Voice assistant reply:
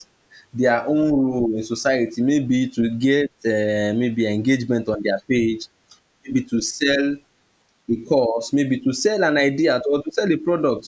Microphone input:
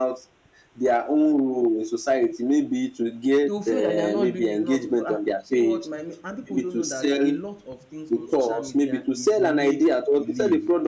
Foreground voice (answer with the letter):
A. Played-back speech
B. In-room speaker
A